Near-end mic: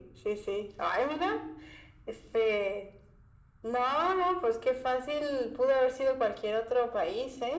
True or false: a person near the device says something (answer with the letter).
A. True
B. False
B